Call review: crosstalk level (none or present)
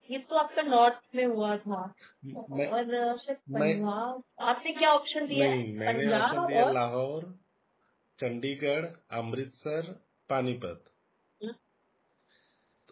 present